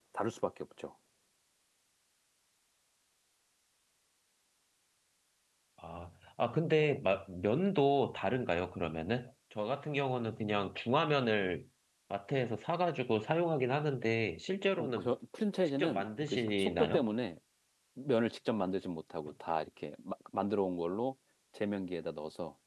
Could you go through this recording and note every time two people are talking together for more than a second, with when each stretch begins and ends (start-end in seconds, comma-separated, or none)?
15.8-17.0